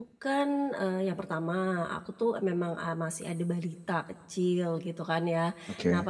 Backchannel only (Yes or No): Yes